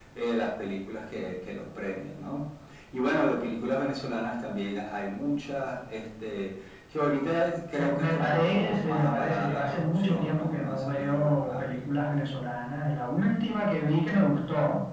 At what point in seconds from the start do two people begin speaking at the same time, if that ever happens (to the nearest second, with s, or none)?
8 s